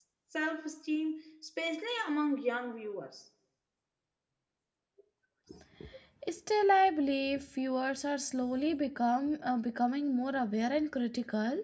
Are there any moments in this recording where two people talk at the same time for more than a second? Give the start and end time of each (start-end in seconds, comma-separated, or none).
none